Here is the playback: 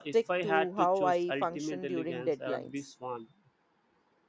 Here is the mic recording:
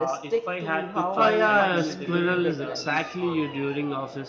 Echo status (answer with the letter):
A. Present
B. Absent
A